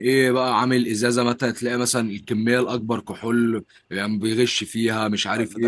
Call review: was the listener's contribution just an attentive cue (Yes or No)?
No